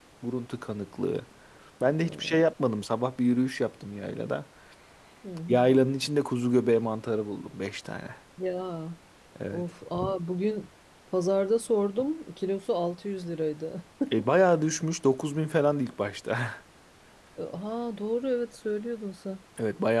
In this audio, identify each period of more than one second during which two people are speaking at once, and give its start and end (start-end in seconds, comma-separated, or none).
none